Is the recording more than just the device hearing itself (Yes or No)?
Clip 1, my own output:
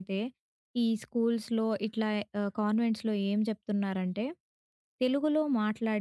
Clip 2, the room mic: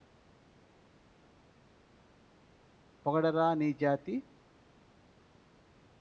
Yes